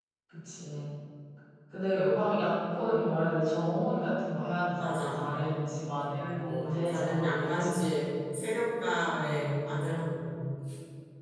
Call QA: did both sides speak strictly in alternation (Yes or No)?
No